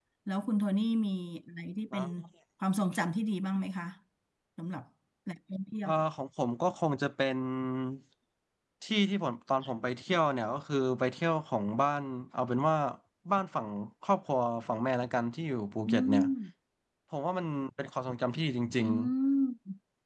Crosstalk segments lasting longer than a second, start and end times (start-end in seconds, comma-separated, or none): none